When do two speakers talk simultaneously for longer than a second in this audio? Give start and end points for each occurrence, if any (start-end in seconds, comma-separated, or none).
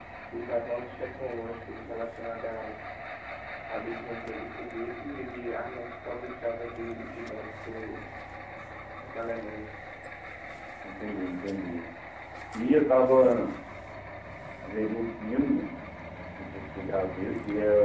none